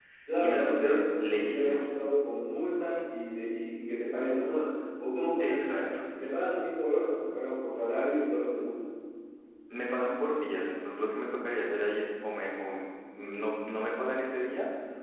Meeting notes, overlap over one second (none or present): present